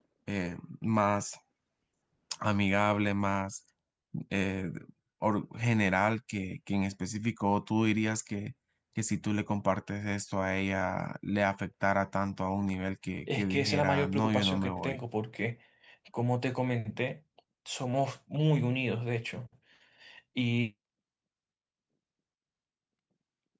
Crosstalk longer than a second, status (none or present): present